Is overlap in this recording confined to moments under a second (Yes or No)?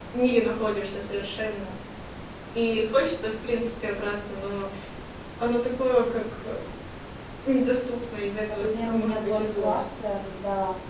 No